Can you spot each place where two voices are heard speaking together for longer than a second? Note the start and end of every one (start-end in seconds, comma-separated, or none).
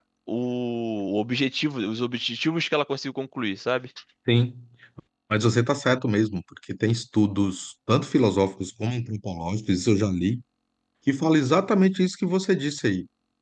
none